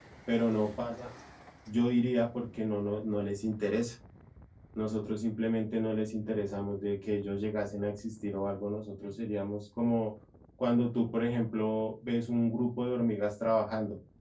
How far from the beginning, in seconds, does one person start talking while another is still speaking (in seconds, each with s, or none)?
none